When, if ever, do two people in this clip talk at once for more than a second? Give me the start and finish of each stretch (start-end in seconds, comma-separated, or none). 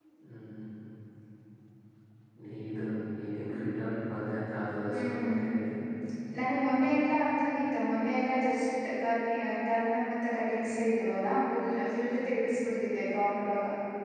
none